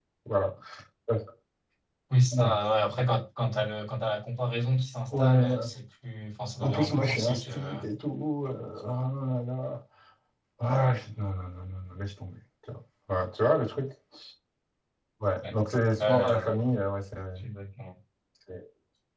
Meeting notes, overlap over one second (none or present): present